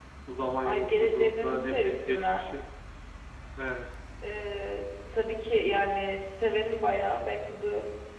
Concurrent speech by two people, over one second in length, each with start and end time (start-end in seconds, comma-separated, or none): 0.6-2.5